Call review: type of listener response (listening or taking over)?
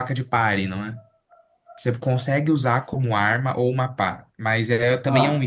listening